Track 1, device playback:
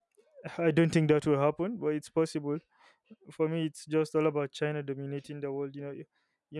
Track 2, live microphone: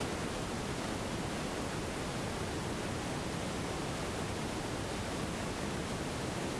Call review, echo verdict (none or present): none